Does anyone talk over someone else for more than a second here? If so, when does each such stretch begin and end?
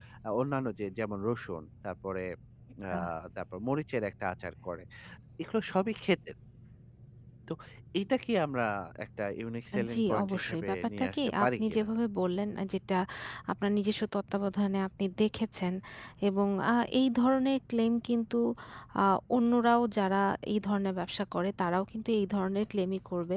9.7-11.8

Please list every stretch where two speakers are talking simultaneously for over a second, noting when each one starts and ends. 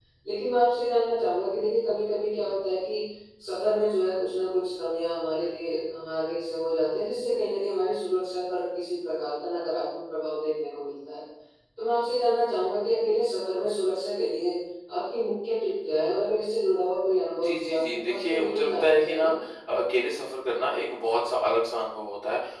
17.3-19.3

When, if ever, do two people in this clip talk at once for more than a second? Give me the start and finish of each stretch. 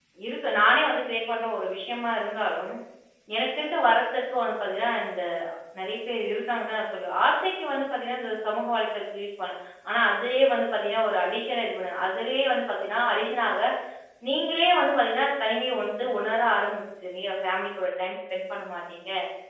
none

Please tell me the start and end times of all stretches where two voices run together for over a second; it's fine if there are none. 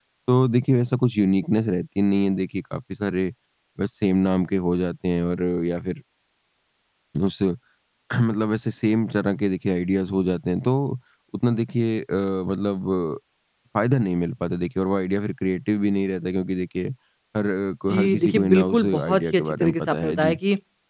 17.9-20.4

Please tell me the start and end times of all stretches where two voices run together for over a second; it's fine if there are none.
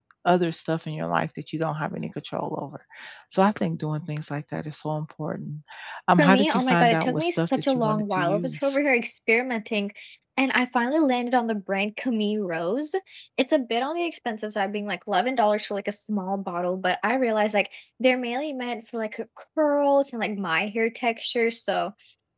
6.2-8.8

